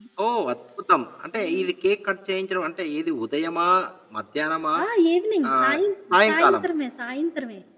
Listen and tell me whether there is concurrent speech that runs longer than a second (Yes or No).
No